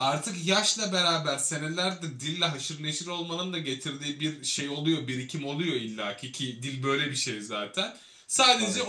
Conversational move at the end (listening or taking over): listening